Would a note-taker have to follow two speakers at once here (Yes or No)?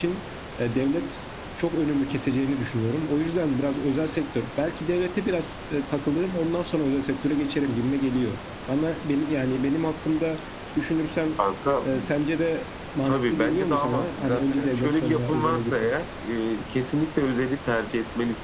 Yes